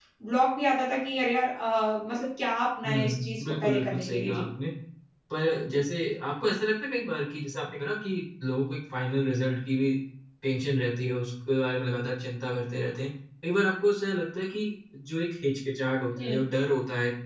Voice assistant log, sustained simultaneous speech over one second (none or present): present